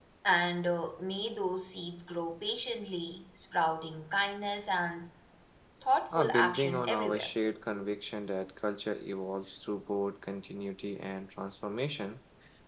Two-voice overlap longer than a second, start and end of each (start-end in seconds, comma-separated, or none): 6.1-7.3